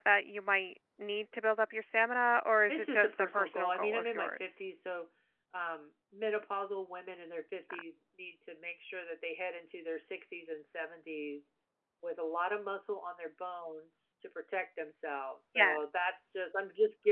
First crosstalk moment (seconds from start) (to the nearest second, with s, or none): 3 s